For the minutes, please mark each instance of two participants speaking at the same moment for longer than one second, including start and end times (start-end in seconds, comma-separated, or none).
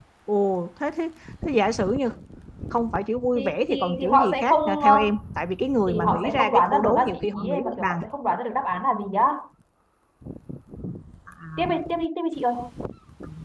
3.4-4.9, 5.9-8.0